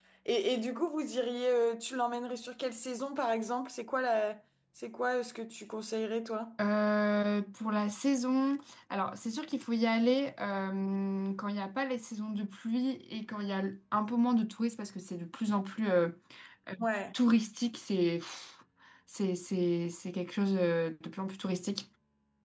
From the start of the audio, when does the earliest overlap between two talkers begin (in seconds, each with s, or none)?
none